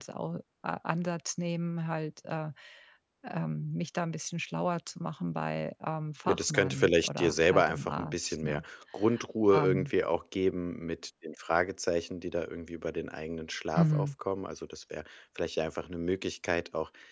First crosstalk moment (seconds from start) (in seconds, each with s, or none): 6.3 s